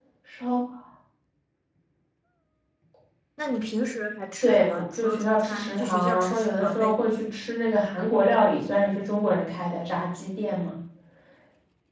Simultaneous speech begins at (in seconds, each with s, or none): 4.4 s